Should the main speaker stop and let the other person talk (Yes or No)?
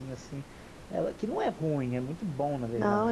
Yes